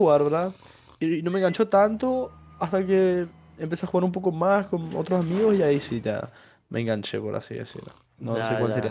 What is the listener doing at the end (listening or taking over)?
taking over